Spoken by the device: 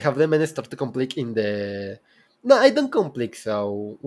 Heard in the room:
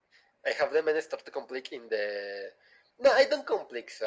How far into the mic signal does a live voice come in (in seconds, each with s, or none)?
none